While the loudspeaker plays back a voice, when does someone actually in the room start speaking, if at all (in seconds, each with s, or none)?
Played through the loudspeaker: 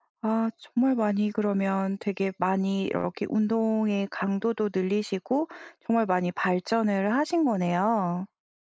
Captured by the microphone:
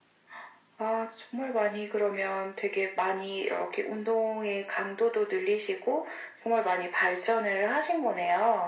none